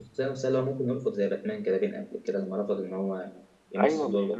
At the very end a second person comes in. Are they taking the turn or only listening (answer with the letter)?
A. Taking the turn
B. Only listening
A